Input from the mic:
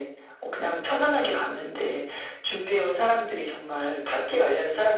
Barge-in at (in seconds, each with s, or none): none